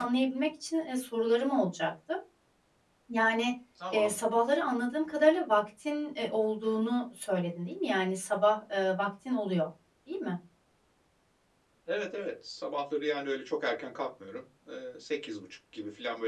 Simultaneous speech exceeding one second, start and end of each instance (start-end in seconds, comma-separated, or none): none